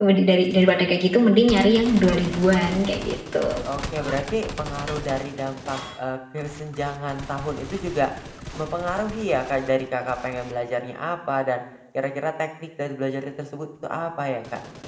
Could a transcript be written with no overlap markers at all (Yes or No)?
Yes